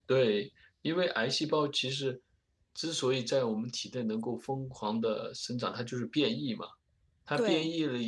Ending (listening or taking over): listening